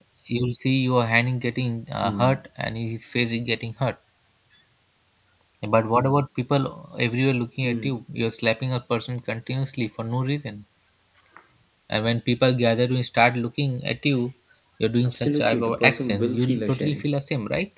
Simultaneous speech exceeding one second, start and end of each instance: 15.0-17.1

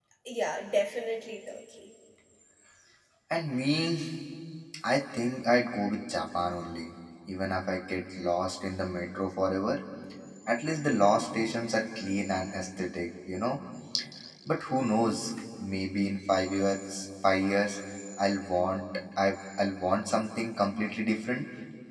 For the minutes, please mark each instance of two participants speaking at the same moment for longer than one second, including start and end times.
none

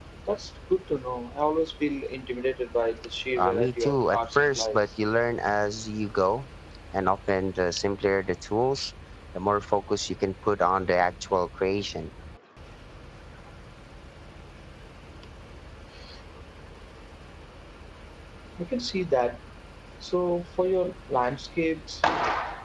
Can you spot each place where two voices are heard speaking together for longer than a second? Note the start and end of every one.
3.4-4.8

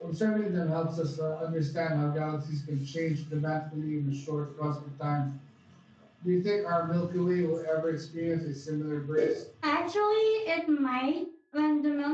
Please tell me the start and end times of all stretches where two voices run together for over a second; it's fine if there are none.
none

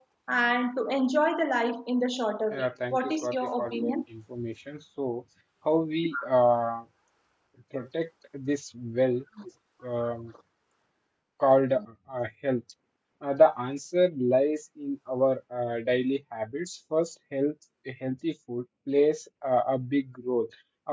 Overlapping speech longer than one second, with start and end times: 2.5-3.9

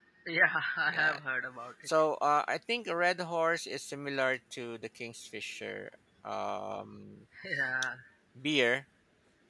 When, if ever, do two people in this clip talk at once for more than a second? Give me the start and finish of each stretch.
none

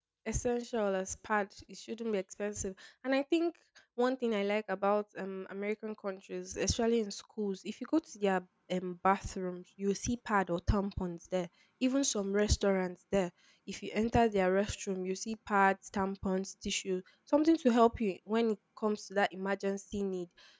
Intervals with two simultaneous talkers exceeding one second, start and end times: none

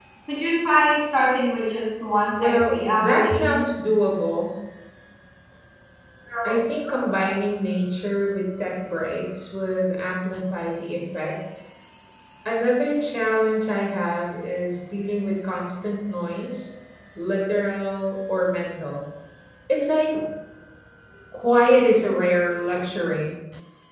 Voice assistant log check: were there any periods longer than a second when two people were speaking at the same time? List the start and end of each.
2.4-3.6

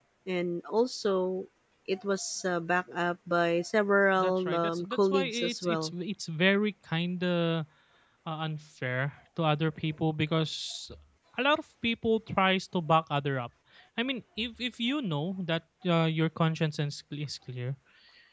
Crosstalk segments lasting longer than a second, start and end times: 4.1-5.9

